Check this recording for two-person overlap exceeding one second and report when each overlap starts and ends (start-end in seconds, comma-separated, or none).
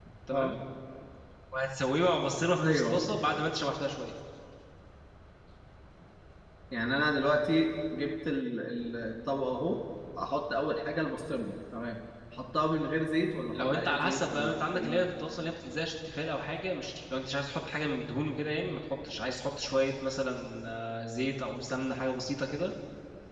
13.5-15.0